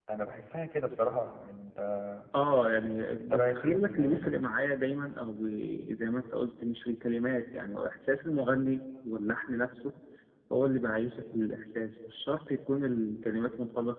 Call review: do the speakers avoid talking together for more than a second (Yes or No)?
No